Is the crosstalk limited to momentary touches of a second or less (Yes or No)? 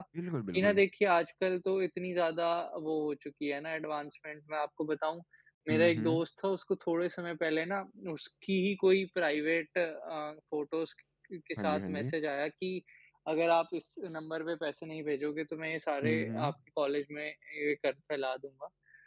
Yes